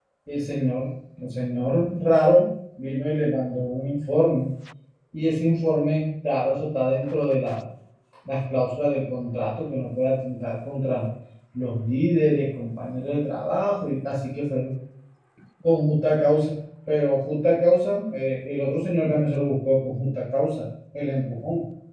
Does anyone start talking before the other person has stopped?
No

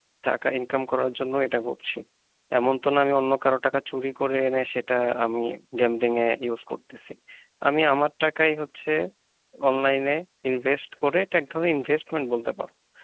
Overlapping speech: No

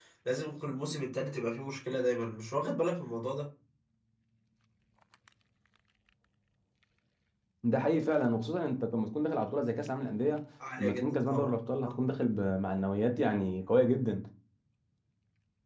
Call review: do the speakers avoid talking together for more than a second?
No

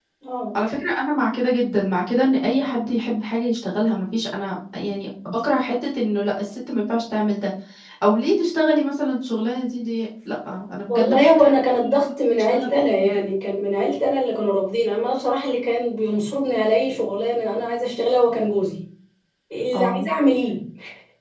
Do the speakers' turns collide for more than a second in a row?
Yes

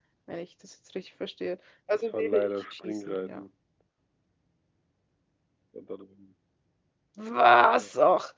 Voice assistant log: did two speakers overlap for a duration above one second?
Yes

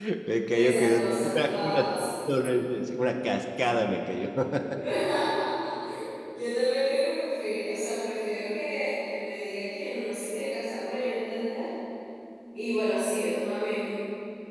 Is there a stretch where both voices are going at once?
Yes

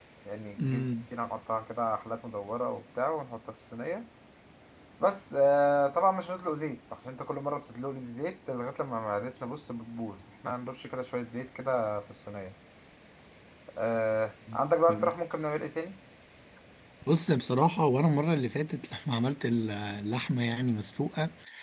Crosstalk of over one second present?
No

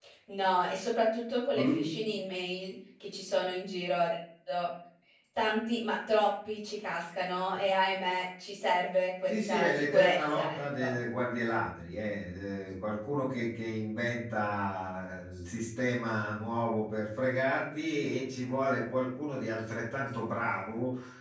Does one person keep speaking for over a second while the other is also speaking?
Yes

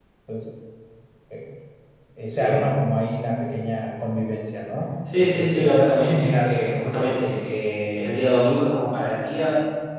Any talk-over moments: Yes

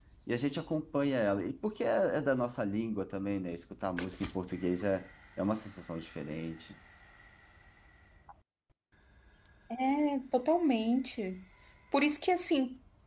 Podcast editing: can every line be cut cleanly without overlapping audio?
Yes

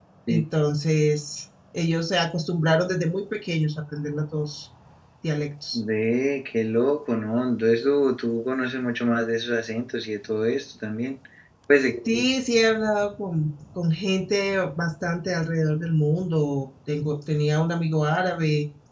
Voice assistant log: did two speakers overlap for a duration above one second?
No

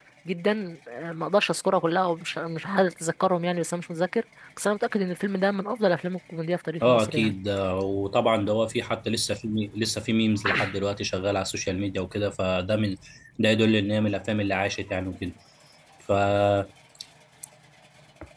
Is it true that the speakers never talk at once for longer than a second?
Yes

